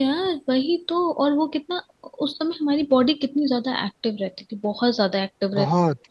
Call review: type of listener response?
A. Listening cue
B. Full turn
A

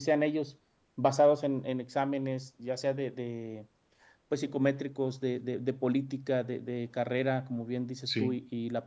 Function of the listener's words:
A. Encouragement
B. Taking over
A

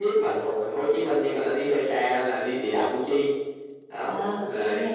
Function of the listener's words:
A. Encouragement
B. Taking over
B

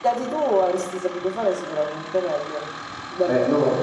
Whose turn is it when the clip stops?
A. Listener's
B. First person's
A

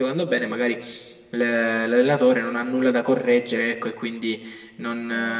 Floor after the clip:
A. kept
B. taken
A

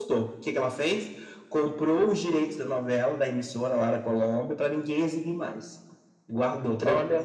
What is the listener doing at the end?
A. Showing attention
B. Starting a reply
A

